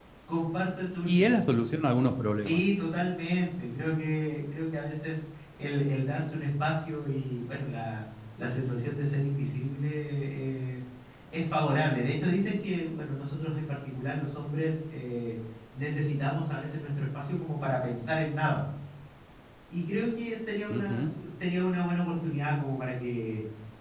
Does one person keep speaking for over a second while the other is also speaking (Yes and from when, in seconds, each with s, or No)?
No